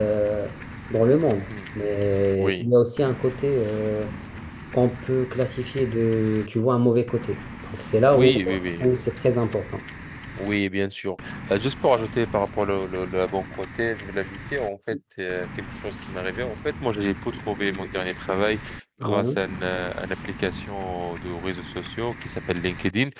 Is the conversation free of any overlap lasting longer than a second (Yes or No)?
Yes